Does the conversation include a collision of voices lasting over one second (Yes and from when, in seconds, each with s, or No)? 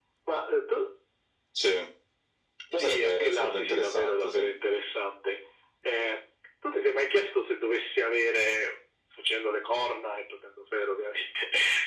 Yes, from 2.7 s